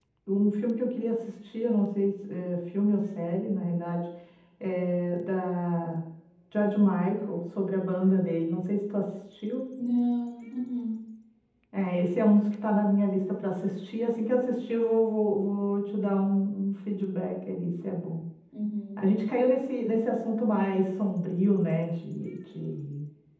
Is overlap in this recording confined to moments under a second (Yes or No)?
Yes